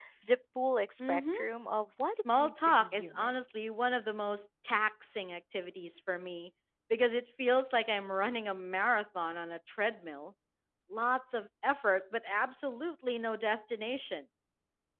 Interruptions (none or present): present